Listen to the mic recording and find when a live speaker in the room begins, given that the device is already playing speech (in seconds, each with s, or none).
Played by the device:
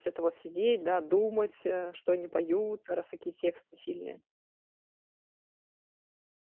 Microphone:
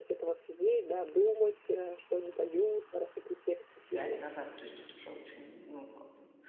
3.9 s